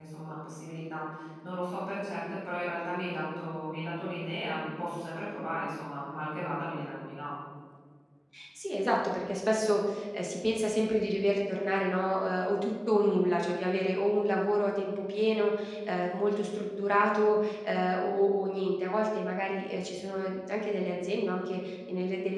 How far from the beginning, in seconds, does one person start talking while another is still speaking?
none

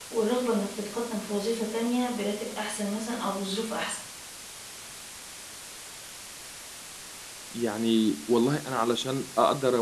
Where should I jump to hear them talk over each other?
none

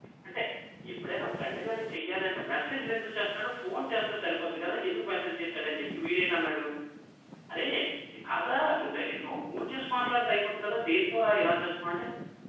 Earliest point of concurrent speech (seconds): none

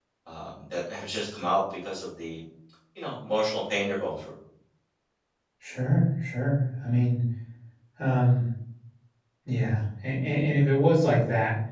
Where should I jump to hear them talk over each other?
none

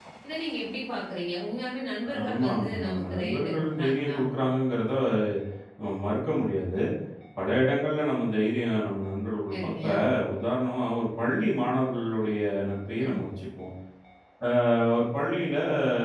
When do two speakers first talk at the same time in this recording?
2 s

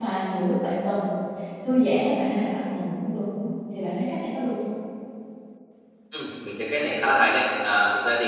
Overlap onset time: none

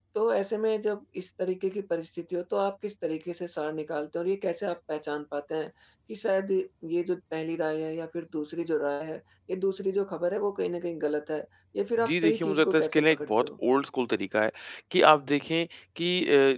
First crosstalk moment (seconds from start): 12 s

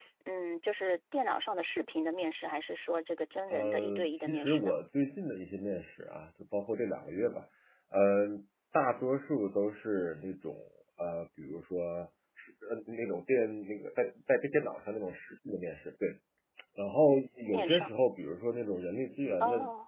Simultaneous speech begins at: 4 s

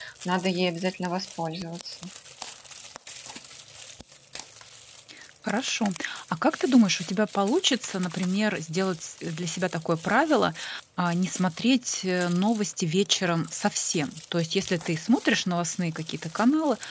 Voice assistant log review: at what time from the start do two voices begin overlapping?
none

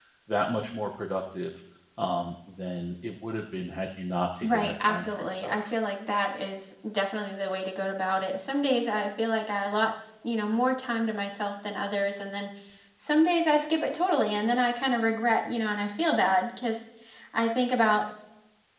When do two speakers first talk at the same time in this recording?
4 s

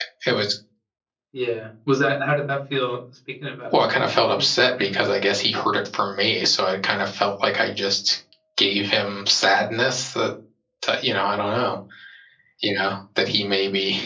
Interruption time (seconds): 4 s

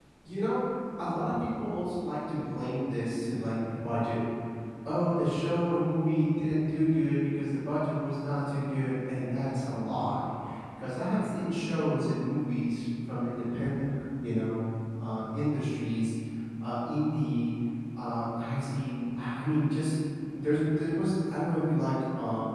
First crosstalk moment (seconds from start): none

